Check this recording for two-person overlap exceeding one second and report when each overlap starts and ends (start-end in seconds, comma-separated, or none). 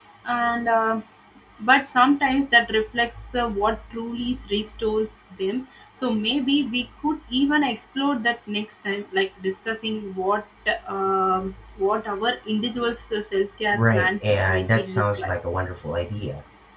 13.7-15.3